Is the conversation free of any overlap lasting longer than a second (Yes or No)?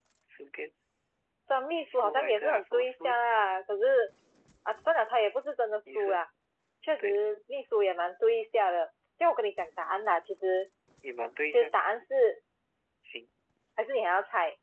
No